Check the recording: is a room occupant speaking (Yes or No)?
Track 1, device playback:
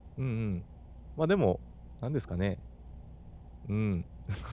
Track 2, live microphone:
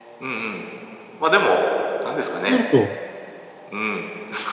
Yes